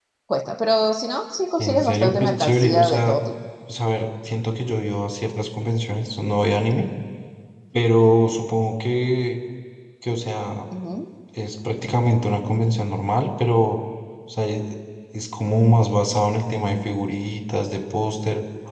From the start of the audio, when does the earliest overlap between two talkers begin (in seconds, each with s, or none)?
1.6 s